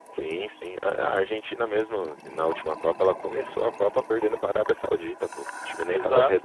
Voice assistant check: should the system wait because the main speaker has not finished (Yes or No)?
No